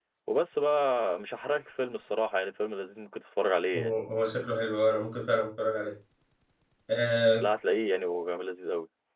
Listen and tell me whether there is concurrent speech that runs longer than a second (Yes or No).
No